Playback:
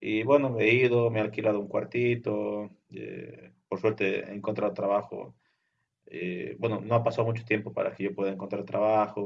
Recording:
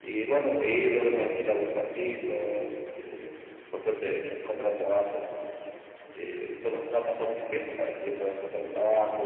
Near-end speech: none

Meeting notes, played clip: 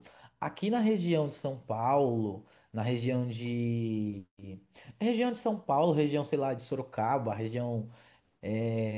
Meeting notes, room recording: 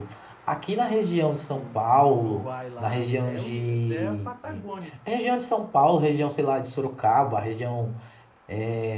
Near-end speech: present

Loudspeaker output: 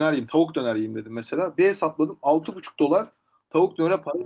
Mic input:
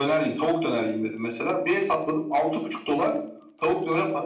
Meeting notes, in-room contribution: none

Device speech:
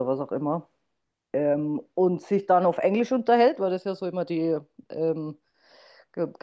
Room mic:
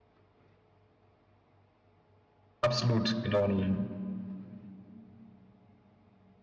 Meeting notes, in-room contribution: present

